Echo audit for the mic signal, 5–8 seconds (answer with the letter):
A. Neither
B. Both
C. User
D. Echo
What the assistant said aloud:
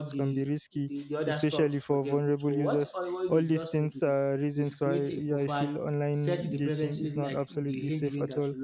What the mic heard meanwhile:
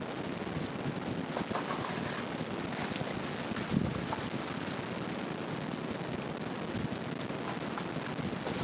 A